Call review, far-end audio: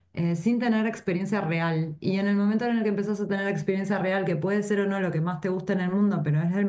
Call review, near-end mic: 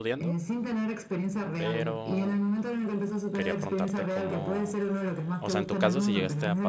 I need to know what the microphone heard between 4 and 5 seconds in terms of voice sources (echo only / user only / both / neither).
both